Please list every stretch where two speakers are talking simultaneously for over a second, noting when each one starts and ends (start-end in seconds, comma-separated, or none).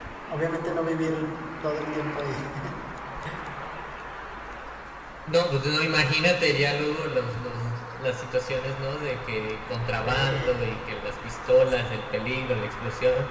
none